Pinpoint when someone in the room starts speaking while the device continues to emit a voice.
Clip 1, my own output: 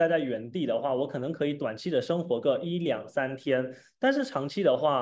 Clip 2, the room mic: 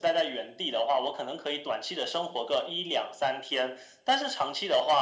none

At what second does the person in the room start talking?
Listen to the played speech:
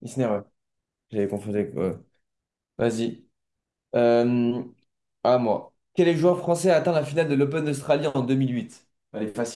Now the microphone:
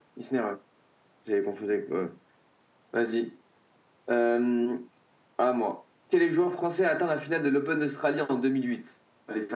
none

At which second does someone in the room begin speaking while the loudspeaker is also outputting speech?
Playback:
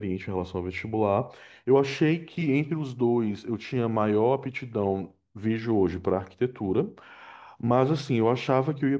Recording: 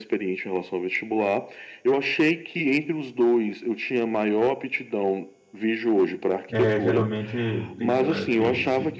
6.5 s

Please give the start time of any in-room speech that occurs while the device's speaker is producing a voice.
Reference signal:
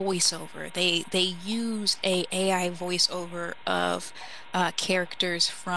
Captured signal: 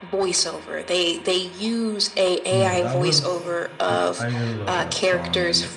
2.5 s

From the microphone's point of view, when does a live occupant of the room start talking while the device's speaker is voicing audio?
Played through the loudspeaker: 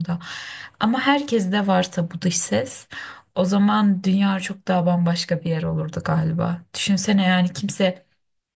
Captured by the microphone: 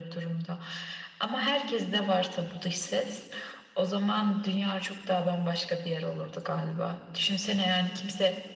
none

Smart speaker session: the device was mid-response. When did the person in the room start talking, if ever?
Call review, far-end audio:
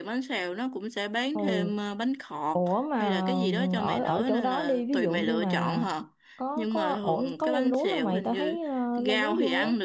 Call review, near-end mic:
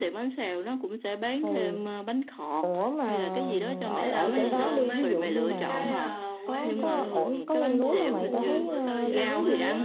3.9 s

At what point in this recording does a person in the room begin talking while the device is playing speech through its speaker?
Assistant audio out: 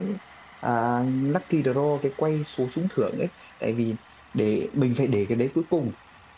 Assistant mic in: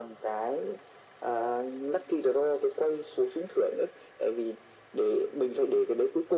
none

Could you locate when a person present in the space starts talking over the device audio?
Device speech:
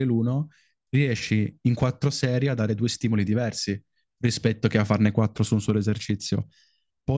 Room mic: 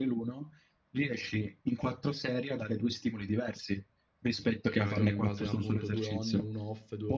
4.7 s

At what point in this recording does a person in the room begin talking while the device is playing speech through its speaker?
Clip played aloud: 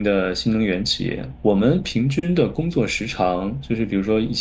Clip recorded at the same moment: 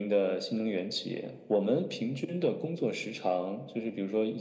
none

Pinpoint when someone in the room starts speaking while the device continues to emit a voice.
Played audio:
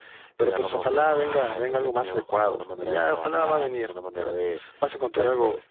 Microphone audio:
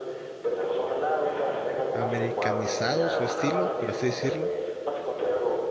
1.9 s

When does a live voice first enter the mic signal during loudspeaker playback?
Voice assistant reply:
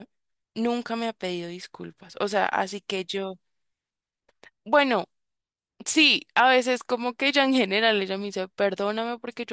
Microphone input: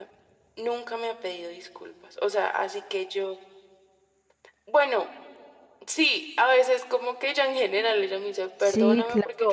8.6 s

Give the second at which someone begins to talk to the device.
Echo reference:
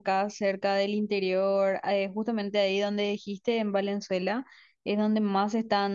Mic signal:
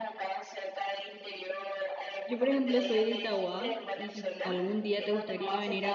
2.2 s

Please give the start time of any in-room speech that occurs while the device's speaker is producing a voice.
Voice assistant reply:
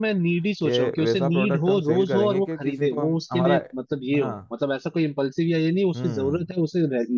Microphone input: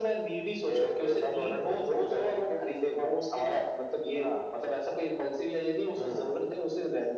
none

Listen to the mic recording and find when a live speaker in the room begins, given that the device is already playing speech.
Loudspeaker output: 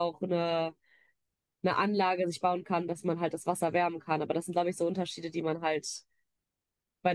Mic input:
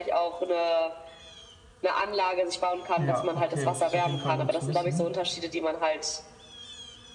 2.9 s

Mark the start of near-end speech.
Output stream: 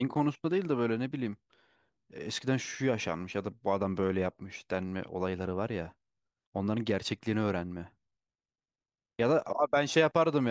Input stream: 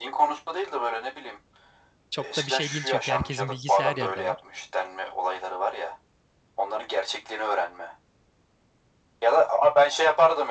2.1 s

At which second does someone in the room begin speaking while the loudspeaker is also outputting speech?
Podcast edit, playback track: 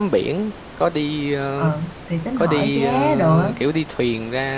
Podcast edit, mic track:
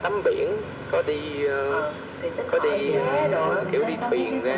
2.6 s

